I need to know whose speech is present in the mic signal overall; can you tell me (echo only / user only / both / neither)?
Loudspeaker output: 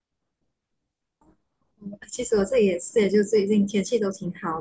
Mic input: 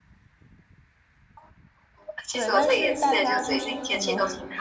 both